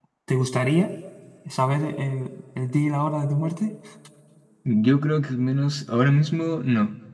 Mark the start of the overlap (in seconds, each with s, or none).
none